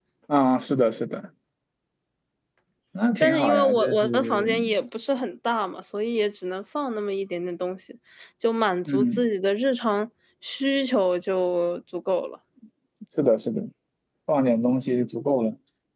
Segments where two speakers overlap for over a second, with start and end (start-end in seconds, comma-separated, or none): 3.2-4.5